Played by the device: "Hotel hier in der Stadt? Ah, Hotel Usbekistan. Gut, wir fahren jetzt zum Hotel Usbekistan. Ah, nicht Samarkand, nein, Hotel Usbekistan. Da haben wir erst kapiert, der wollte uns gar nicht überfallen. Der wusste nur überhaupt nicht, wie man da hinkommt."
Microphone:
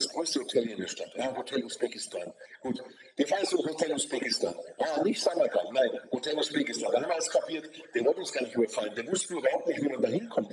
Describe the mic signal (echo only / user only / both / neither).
echo only